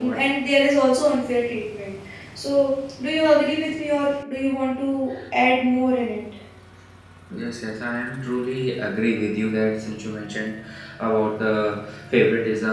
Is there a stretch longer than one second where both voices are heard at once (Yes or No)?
No